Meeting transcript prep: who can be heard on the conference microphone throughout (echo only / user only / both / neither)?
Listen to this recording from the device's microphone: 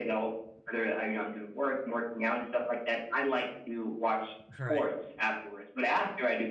both